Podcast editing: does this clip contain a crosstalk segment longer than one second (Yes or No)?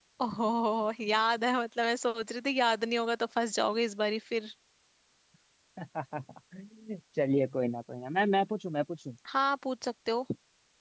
No